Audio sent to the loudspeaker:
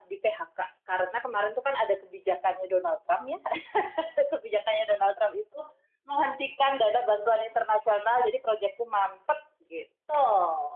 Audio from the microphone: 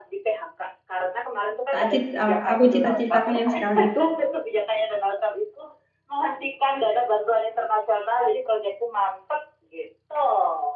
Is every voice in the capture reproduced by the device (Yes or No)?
No